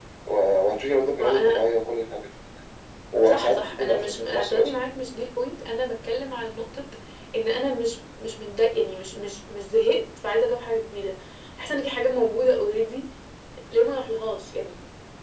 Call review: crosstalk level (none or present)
present